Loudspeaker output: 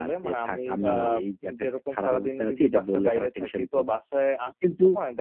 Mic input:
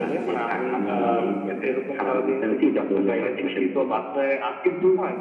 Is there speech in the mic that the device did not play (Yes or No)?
No